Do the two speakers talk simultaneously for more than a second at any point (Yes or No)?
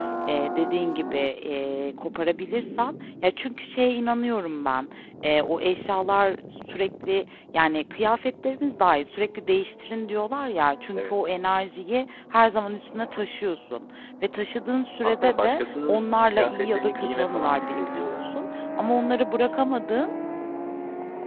Yes